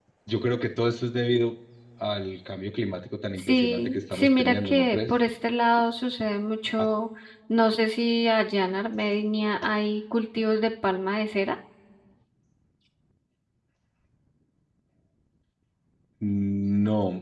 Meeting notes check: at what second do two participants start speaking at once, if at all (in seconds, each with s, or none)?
3.4 s